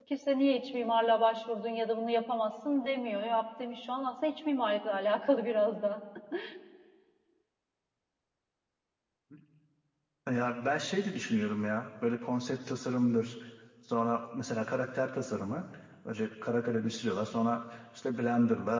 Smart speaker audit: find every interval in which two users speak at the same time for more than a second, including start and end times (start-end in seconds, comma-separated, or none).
none